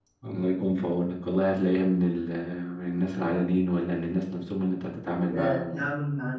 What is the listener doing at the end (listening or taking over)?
taking over